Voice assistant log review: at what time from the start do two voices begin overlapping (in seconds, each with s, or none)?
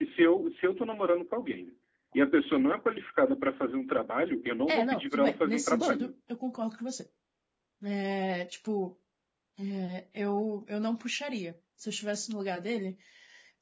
4.7 s